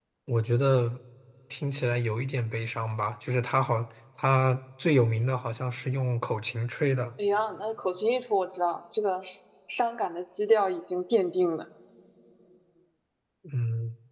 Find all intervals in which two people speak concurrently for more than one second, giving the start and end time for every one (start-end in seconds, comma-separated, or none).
none